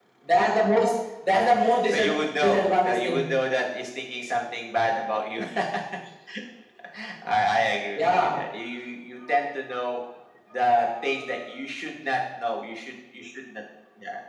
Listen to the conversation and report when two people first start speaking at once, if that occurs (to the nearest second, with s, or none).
2 s